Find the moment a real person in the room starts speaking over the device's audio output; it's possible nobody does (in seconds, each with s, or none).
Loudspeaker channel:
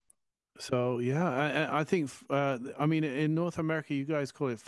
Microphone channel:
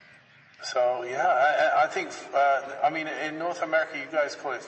none